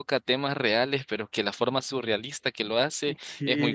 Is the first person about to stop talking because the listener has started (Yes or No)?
Yes